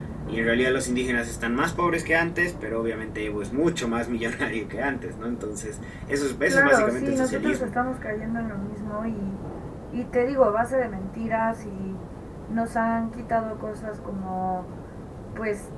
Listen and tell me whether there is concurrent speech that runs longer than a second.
Yes, from 6.5 s

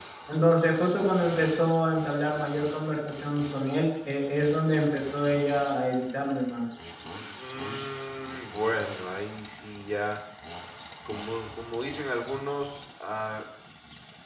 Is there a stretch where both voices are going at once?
No

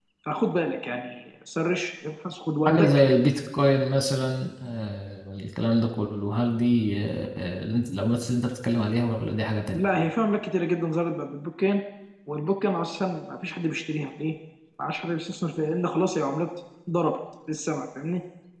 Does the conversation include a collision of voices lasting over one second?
No

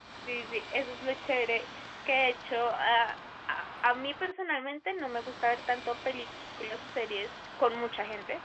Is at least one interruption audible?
No

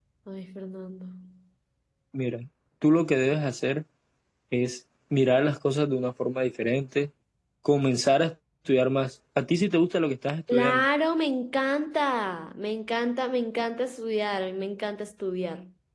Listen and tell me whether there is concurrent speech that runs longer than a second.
No

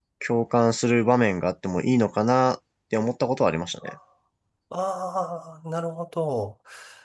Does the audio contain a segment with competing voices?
No

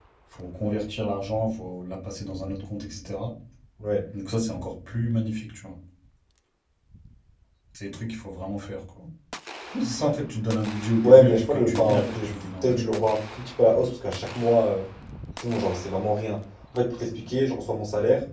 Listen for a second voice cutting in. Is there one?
Yes, from 11.0 s

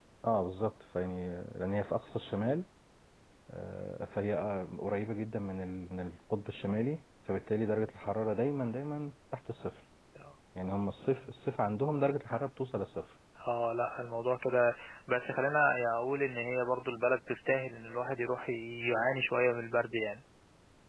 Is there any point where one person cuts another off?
No

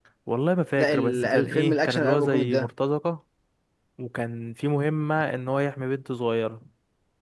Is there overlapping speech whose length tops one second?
Yes, from 0.8 s

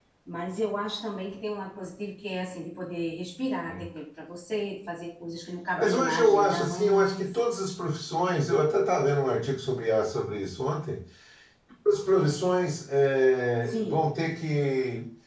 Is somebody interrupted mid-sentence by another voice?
Yes, from 5.8 s

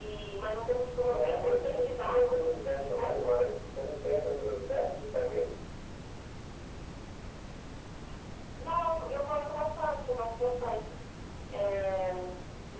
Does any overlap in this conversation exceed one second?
Yes, from 1.1 s

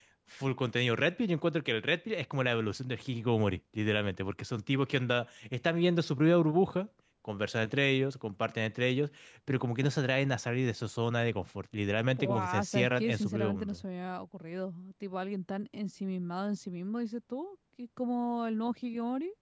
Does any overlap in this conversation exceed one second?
Yes, from 12.2 s

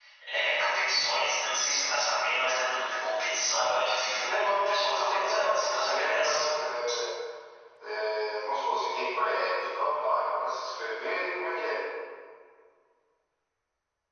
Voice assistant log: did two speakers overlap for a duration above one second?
Yes, from 4.2 s

